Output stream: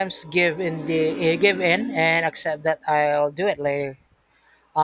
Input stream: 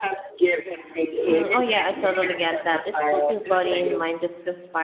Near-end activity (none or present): present